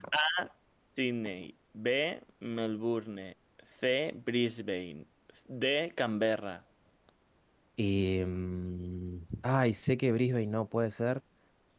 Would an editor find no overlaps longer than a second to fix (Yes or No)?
Yes